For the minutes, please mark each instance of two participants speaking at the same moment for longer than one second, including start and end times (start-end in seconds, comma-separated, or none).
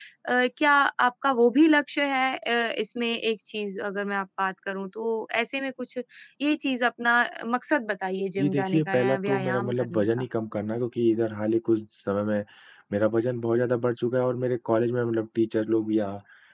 8.4-10.2